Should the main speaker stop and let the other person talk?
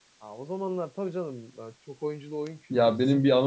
Yes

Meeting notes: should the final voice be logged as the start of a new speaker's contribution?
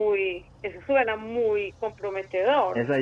Yes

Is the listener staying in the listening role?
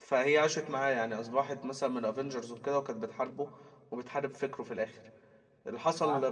Yes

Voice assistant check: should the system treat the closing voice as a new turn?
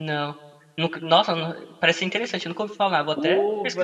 Yes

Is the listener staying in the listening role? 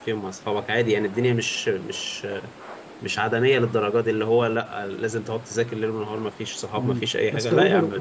No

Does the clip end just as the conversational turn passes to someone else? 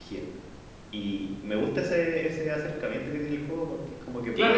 Yes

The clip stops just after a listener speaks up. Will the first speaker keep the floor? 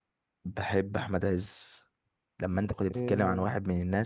Yes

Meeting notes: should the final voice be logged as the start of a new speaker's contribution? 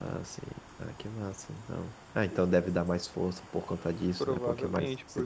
Yes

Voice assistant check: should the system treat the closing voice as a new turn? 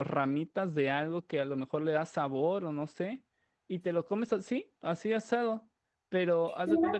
No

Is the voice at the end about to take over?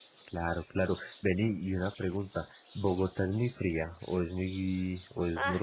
Yes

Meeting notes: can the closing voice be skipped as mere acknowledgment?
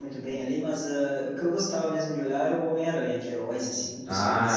Yes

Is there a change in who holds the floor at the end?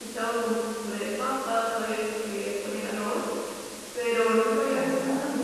Yes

